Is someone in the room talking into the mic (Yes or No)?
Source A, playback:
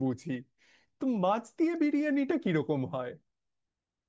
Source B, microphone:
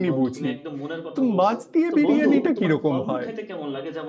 Yes